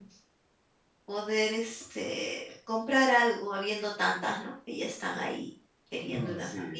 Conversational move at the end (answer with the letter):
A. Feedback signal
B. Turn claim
B